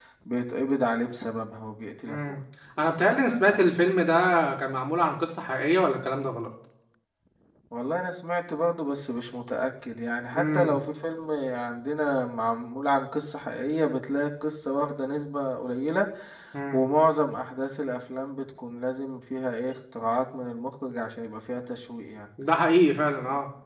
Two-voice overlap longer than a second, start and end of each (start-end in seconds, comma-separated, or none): none